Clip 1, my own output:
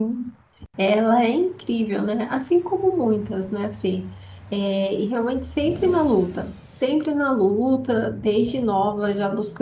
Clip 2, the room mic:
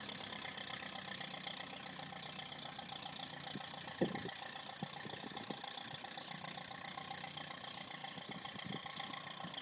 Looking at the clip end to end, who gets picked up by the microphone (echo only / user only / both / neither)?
neither